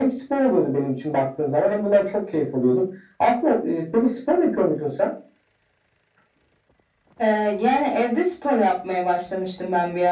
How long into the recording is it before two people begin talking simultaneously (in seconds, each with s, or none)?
none